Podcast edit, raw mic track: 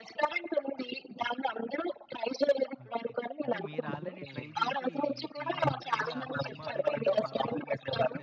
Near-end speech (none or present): present